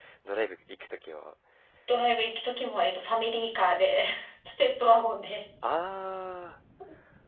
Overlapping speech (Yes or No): No